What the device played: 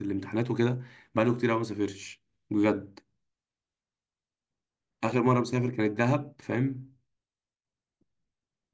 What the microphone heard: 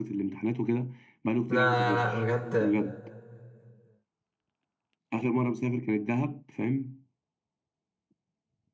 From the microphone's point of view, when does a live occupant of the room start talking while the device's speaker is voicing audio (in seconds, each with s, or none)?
1.5 s